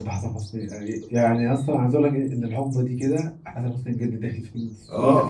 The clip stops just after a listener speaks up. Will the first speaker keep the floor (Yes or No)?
No